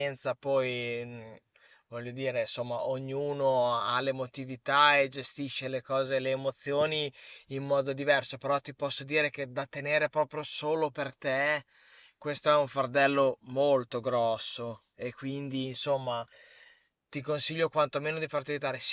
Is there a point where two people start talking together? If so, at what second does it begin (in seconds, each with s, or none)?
none